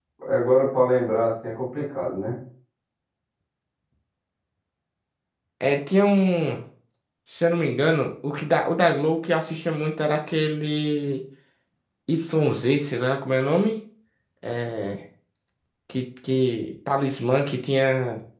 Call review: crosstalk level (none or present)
none